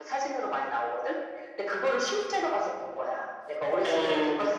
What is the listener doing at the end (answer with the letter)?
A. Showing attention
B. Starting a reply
A